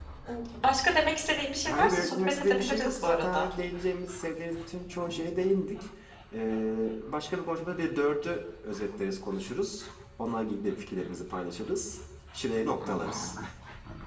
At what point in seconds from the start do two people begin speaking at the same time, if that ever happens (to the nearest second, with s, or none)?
2 s